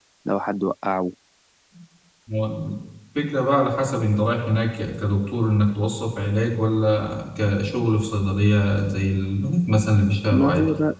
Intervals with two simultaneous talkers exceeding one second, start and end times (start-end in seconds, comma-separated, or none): none